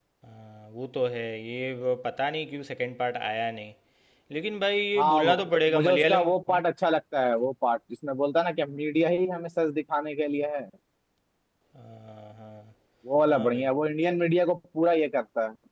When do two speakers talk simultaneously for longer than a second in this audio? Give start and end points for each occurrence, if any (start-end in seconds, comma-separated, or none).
5.0-6.6